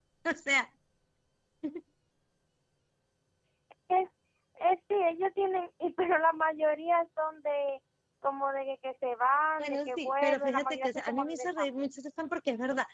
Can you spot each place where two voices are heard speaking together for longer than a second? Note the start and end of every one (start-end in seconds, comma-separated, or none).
9.6-11.8